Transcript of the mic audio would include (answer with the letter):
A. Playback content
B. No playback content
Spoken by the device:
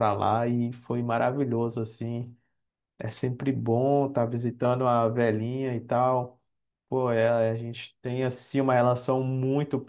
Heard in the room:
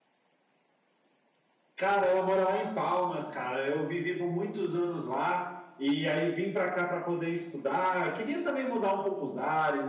B